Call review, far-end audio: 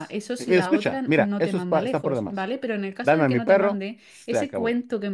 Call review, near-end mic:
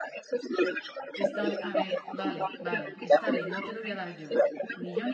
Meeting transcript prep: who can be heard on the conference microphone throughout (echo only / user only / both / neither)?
both